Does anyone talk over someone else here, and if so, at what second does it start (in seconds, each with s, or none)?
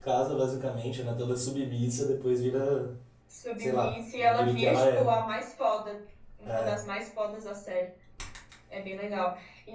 3.6 s